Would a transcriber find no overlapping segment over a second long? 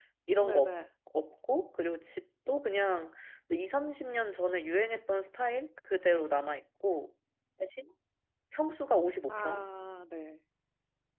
Yes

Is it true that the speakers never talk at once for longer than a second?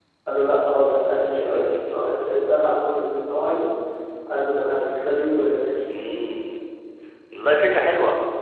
Yes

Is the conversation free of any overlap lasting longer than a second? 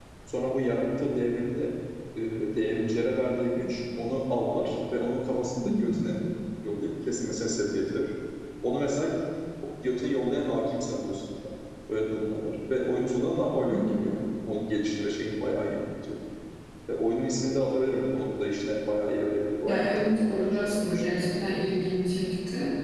No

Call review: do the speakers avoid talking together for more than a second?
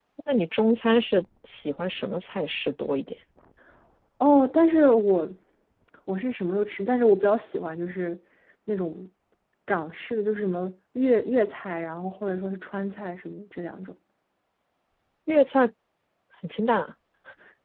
Yes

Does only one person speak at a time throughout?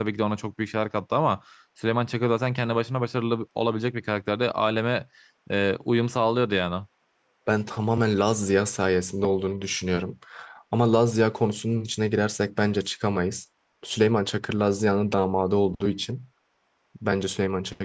Yes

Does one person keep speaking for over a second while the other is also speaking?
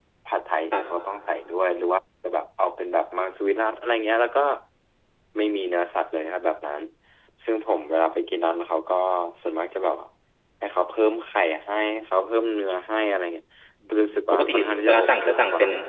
Yes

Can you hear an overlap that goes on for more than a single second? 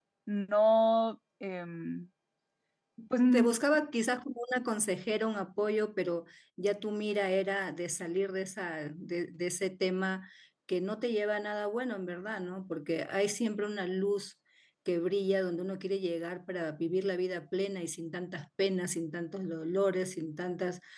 No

